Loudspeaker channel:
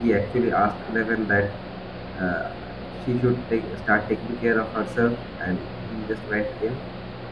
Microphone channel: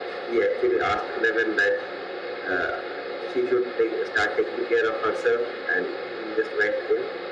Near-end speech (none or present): none